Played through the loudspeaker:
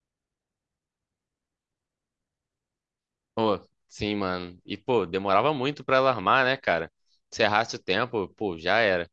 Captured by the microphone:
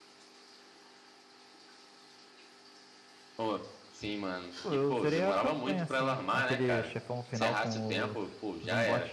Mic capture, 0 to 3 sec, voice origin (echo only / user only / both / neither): neither